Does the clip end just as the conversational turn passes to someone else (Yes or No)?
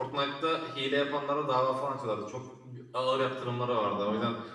No